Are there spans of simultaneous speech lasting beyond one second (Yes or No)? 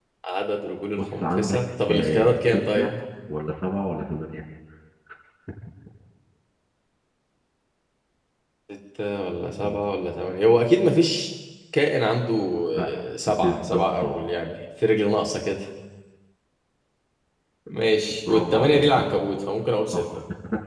Yes